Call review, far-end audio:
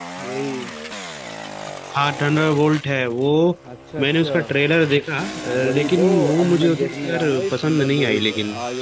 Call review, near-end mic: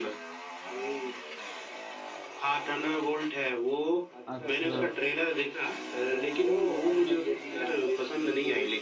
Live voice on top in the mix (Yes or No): No